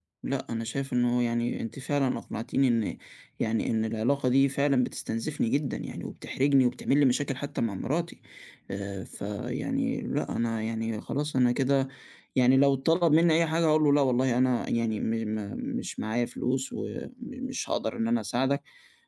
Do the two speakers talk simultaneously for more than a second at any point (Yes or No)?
No